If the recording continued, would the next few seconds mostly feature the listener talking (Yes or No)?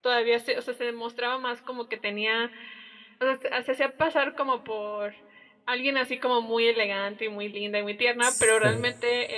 No